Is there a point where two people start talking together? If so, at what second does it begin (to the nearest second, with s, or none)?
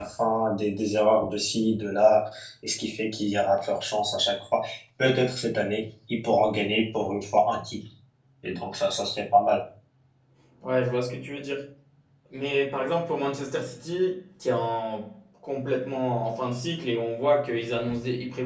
none